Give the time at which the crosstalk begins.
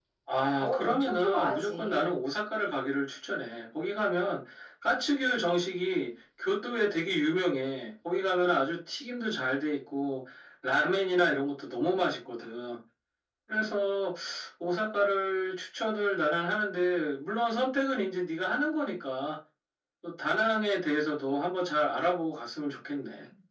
1 s

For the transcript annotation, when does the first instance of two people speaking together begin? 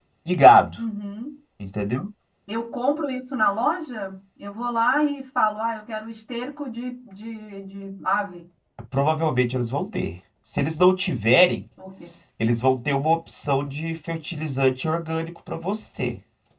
none

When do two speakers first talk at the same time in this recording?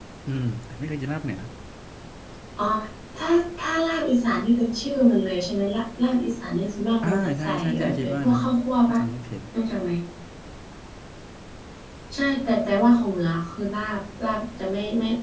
7 s

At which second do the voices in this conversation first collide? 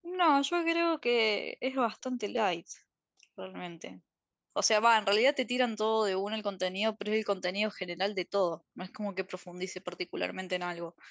none

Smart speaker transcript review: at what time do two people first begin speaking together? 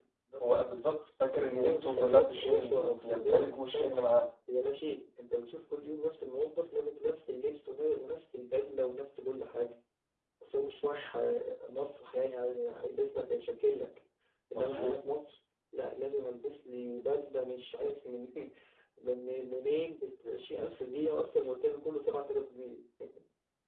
1 s

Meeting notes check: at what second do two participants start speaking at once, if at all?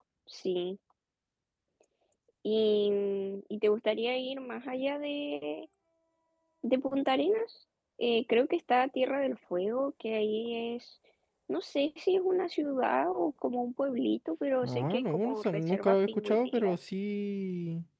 15 s

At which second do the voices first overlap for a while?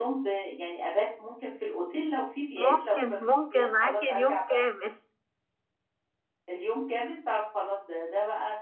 3 s

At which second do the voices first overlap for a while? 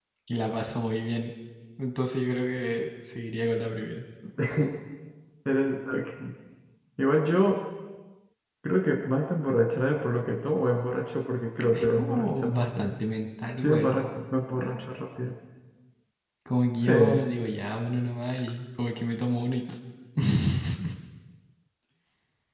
12 s

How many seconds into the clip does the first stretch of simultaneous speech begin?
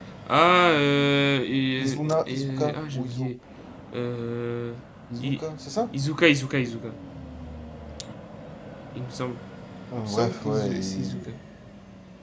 2 s

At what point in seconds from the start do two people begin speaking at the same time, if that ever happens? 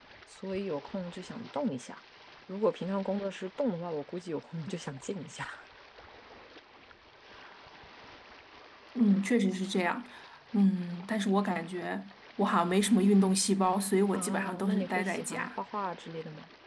14 s

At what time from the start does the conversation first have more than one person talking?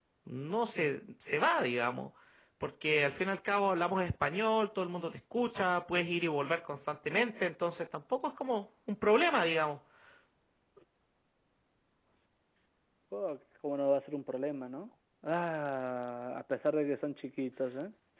none

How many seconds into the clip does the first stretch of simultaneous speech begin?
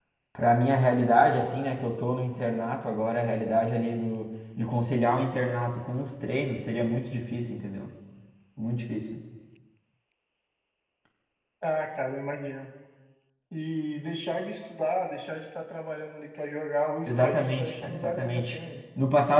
17 s

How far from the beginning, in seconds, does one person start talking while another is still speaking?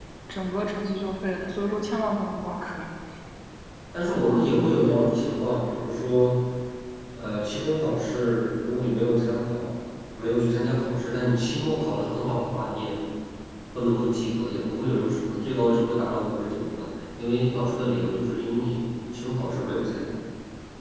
none

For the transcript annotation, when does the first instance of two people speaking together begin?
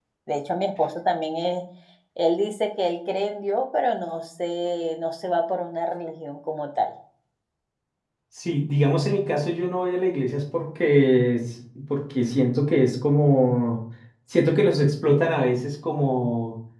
none

